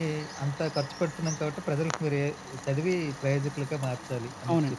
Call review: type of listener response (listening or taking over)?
taking over